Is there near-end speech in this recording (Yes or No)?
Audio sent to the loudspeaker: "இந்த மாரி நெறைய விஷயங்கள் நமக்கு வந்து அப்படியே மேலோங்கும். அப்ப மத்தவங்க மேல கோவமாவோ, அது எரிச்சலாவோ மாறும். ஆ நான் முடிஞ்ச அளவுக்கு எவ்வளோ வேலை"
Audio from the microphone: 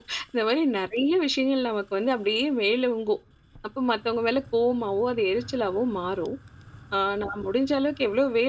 No